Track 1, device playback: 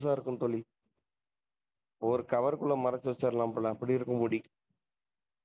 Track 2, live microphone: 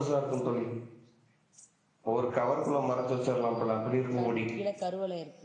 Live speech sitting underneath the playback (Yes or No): Yes